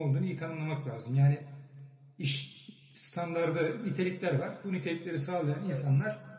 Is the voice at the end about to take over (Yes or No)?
No